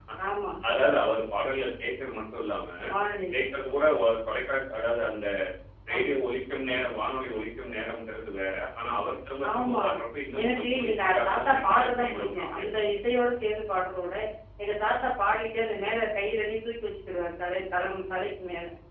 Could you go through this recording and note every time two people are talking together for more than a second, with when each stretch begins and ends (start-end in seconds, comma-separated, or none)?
10.4-12.7